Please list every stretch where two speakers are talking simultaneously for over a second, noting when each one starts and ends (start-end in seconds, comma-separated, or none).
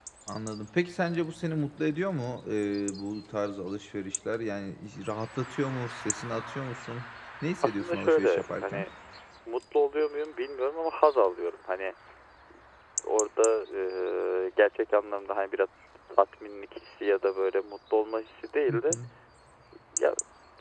7.6-8.8